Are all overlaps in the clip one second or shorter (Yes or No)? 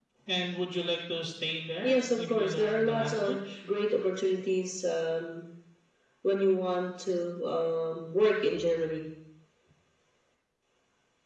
No